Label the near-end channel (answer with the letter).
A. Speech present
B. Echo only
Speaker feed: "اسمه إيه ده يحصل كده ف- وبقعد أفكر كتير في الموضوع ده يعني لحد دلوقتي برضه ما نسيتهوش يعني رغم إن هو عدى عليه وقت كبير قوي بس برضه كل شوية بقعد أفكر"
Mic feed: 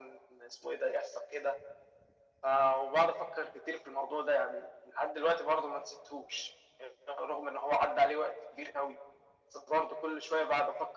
B